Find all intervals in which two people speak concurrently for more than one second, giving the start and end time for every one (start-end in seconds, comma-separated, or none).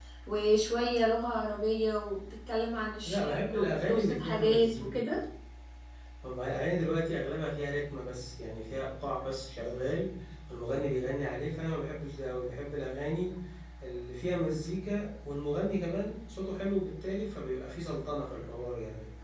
3.0-4.9